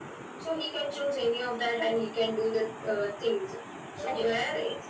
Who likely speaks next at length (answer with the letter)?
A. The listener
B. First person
B